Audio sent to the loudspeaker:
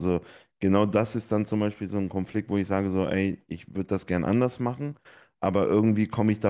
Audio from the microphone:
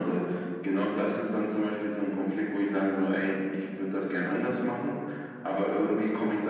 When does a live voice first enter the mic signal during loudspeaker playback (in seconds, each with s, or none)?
none